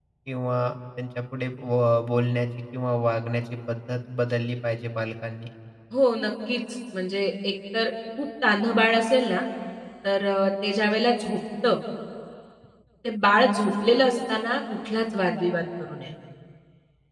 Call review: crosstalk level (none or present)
none